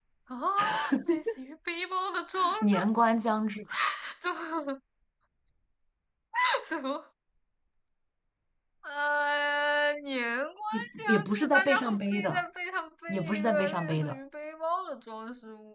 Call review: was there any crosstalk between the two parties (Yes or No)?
Yes